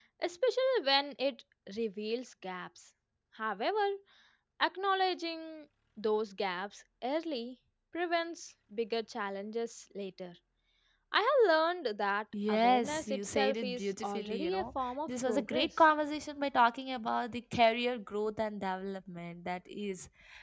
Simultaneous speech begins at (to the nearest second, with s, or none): 12 s